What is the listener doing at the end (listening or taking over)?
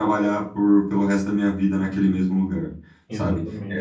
listening